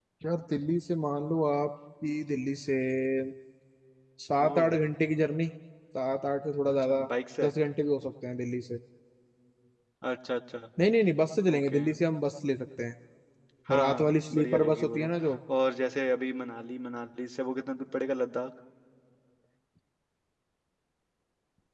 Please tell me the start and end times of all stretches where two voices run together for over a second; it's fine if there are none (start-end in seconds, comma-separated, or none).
13.8-15.1